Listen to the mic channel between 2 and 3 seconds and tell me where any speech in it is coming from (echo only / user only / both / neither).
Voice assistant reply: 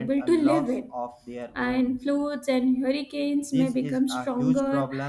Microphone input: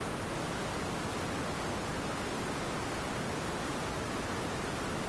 neither